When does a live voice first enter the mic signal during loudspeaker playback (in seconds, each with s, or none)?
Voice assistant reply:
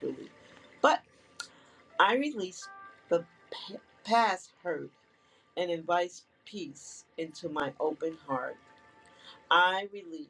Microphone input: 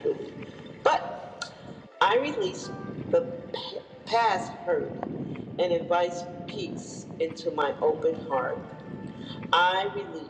none